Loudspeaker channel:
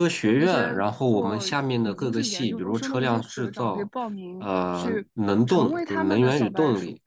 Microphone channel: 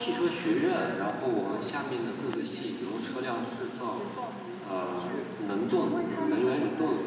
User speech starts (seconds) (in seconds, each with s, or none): none